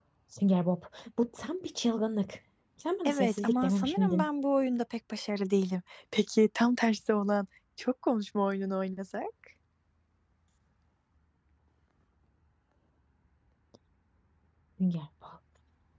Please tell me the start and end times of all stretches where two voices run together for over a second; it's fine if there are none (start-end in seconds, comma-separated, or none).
3.0-4.3